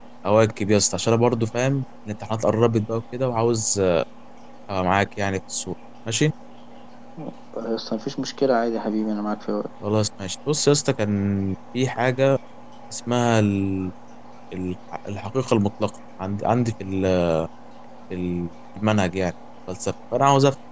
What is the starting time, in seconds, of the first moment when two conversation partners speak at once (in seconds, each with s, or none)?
none